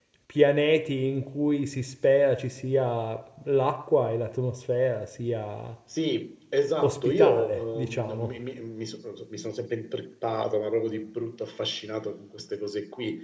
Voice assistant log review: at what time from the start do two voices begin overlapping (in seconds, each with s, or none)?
6.8 s